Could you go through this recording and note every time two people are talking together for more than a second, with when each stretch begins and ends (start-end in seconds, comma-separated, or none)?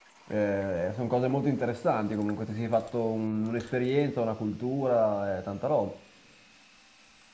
none